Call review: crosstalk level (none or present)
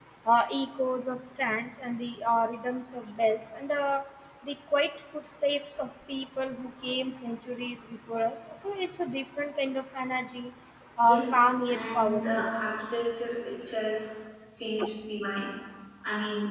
present